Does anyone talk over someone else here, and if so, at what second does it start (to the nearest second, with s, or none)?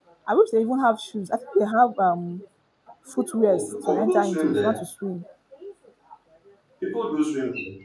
3 s